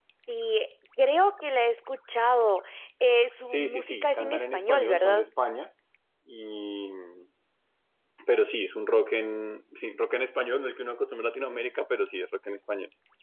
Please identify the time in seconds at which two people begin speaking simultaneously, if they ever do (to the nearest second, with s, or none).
3 s